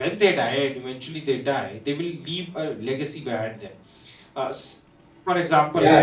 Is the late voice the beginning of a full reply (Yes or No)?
No